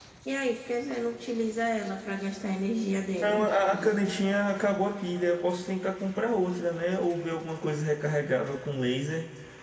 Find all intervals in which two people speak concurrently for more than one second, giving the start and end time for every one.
none

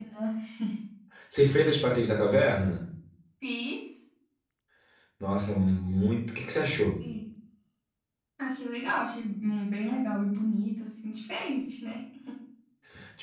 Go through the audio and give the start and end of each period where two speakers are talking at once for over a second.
none

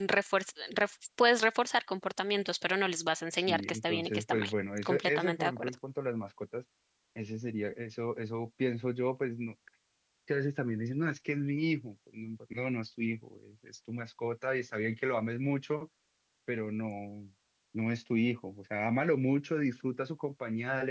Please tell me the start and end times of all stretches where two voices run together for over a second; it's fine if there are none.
3.4-5.7

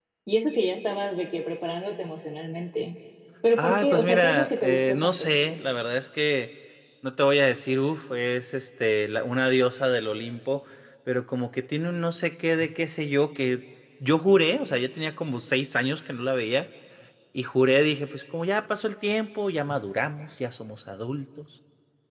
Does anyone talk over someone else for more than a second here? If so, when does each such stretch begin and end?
3.6-5.3

